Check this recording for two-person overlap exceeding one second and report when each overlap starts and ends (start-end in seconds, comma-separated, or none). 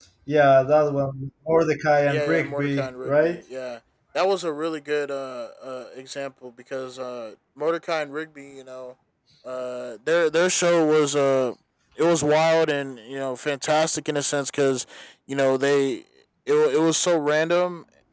2.1-3.4